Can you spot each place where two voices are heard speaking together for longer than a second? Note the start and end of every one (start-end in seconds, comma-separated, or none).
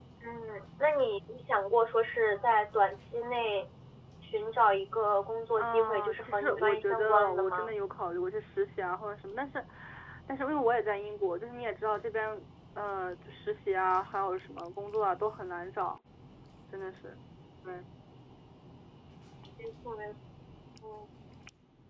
5.6-7.7